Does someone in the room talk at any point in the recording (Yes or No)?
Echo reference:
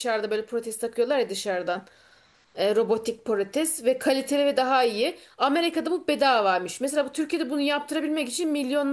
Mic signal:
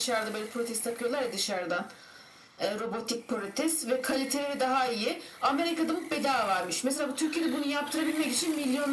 No